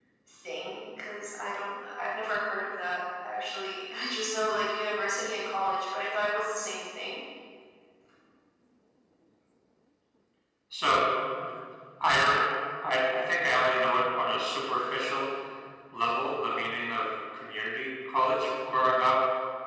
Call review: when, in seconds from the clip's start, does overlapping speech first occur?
none

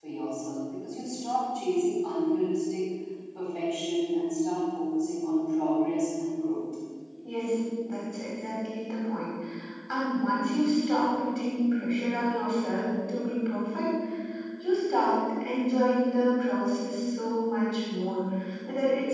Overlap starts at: none

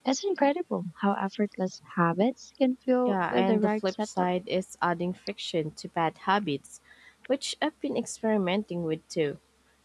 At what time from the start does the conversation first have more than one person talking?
3.1 s

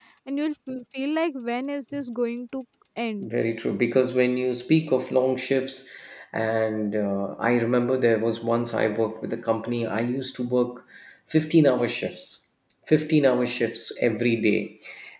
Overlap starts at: none

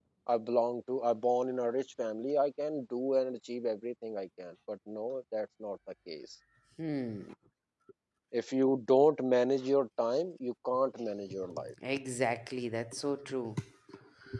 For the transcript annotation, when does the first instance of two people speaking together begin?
none

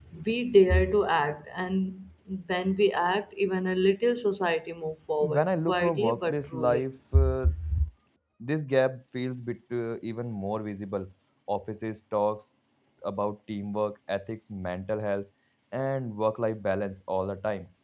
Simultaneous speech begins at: 5.3 s

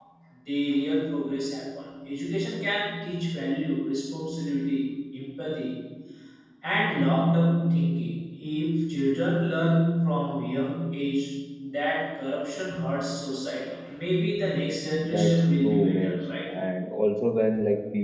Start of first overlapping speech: 15.0 s

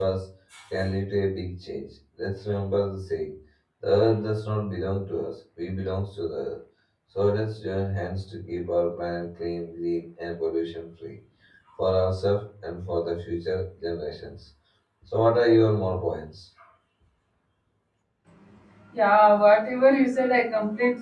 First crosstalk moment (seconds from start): none

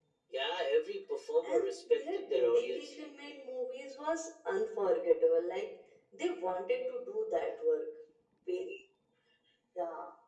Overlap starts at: 1.4 s

